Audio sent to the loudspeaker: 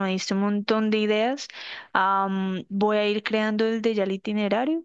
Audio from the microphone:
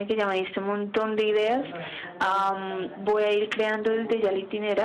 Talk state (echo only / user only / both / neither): both